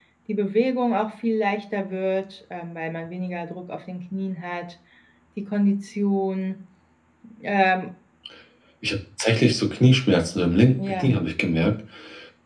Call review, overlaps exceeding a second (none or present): none